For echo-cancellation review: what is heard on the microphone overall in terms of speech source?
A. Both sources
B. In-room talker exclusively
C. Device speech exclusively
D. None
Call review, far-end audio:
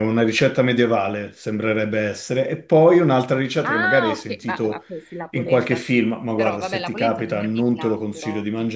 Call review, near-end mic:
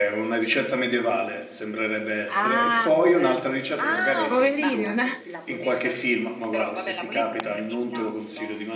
A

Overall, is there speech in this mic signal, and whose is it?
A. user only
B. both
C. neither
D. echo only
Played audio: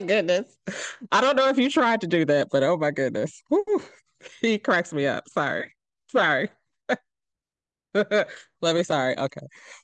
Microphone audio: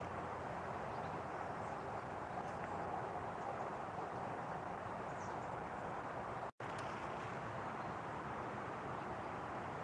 C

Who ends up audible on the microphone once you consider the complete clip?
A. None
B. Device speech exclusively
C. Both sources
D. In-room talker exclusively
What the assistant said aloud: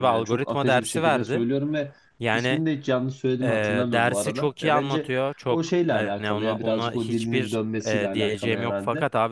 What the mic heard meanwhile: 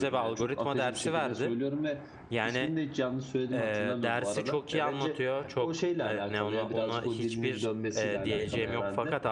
B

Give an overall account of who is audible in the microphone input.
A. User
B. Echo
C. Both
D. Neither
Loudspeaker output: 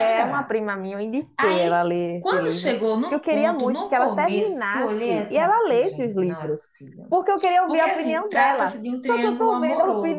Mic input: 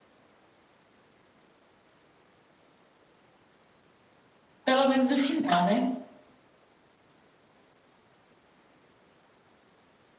A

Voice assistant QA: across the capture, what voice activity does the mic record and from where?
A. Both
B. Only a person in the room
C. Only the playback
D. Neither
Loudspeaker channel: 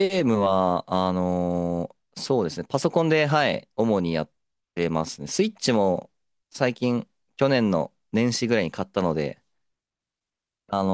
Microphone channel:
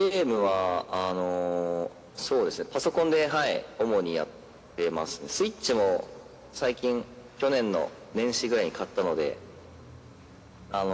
C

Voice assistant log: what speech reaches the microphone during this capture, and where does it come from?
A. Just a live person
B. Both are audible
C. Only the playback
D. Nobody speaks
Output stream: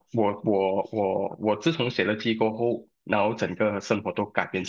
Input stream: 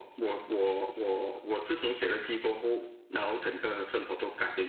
C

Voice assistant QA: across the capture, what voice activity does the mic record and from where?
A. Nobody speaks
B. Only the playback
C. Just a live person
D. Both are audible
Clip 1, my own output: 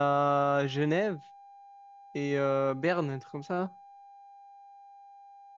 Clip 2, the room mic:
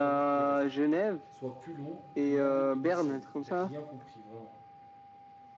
D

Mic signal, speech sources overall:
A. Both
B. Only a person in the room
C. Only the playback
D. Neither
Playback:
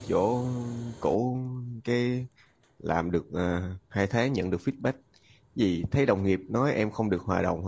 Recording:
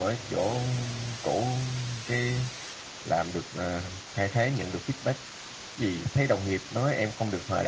C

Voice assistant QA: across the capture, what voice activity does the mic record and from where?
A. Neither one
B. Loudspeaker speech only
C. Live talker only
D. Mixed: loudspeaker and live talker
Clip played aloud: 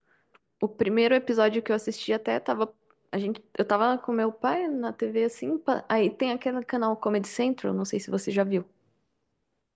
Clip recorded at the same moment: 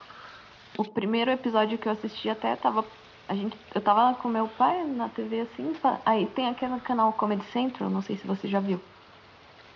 B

